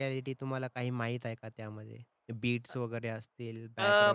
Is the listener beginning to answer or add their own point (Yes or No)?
Yes